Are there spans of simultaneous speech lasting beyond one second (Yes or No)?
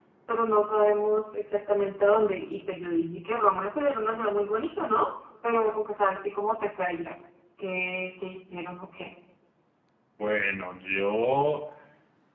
No